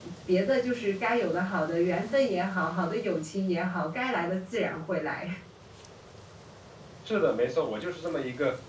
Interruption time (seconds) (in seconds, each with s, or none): none